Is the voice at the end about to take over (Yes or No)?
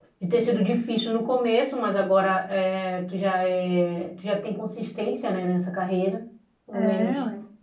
No